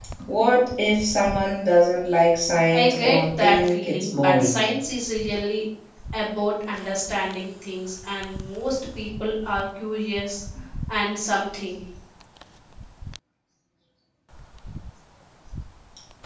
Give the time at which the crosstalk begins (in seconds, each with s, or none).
2.7 s